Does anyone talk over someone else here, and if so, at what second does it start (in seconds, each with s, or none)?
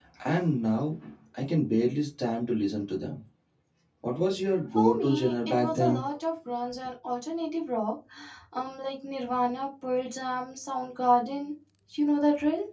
4.8 s